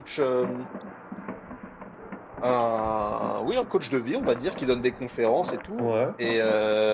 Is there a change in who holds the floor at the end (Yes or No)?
No